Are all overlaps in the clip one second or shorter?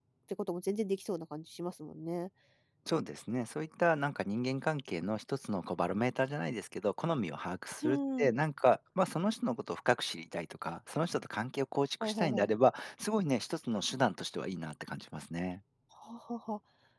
Yes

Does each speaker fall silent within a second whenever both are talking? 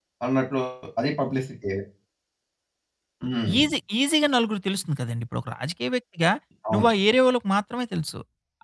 Yes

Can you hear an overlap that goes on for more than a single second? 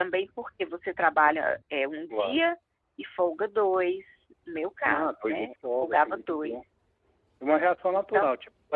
Yes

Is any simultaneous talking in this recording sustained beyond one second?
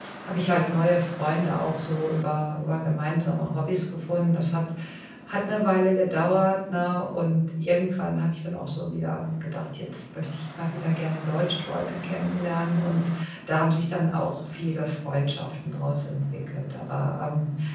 No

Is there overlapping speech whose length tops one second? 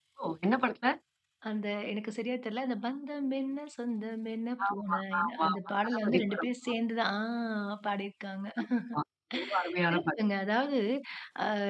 Yes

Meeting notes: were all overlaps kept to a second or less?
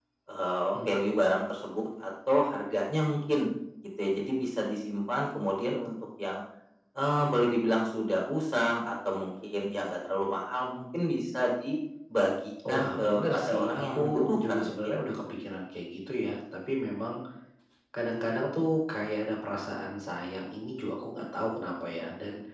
No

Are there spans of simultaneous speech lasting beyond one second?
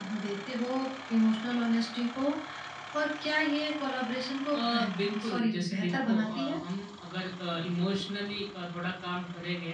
Yes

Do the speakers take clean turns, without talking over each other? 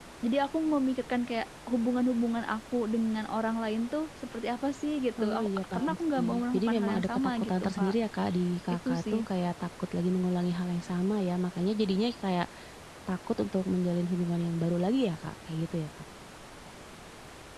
No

